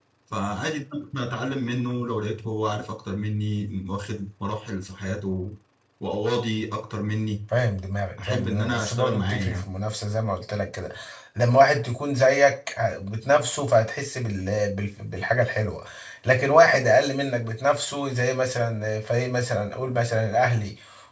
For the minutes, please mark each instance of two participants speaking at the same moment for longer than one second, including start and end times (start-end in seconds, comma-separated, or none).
8.2-9.7